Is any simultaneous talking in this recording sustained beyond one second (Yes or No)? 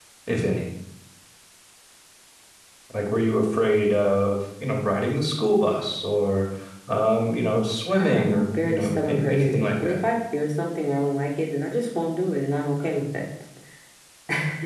Yes